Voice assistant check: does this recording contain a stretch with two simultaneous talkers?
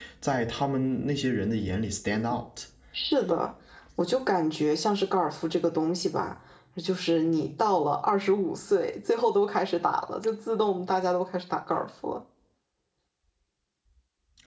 No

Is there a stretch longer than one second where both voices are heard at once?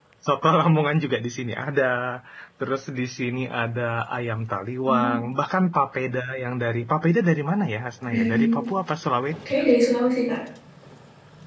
No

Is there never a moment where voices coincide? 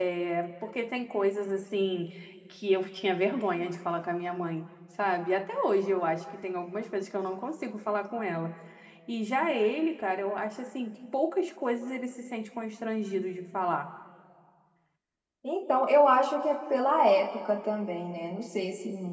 Yes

